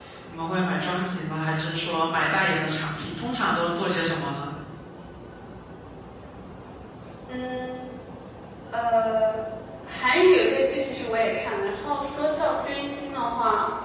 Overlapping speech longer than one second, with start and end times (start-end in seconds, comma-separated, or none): none